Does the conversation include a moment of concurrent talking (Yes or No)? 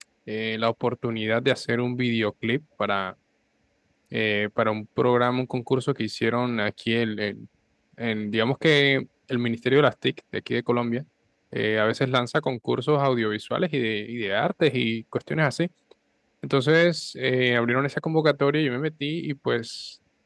No